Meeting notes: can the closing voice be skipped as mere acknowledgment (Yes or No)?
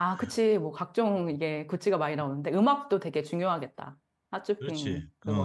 No